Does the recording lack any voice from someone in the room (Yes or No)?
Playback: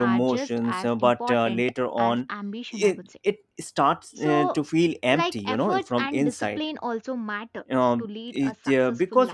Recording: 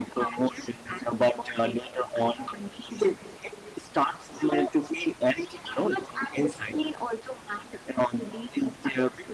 Yes